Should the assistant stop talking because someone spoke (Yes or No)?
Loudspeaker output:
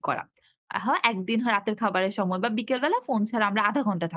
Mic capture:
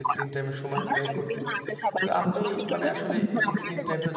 Yes